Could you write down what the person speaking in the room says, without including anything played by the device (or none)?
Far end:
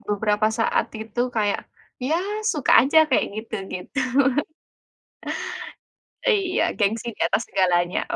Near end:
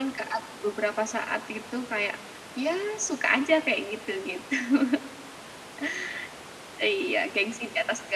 none